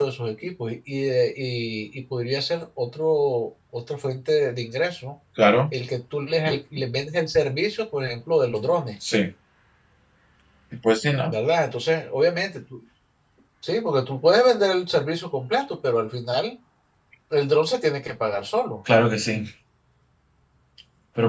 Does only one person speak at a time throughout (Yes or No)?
Yes